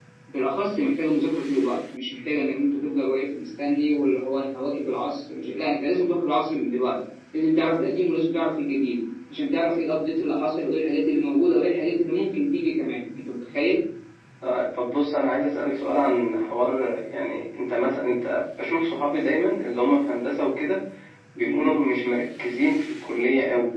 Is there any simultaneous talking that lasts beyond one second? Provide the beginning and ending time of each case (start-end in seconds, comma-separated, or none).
none